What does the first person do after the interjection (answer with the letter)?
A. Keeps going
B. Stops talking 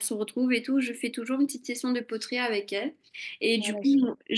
A